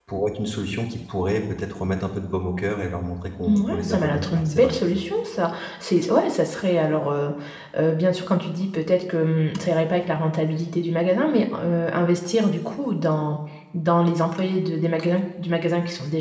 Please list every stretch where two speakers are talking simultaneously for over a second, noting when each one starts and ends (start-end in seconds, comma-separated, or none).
3.5-4.8